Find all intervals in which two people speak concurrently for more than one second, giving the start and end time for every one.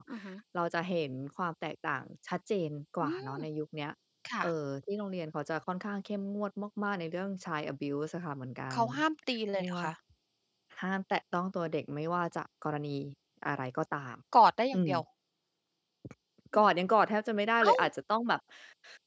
none

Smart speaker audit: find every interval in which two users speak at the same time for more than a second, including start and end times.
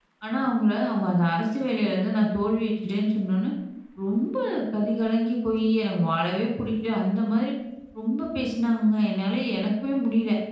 none

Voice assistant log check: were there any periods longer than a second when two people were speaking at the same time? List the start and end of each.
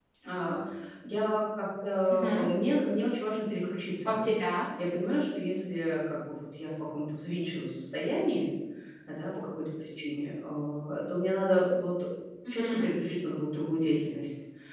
none

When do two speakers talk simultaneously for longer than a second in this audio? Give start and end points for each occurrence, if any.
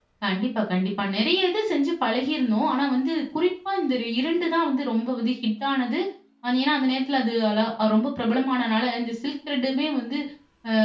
none

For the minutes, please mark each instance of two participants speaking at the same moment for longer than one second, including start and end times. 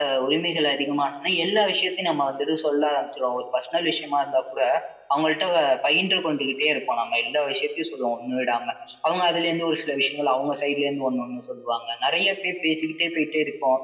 none

